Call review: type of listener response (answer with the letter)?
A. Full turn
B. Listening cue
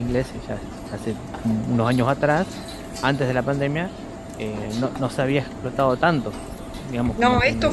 A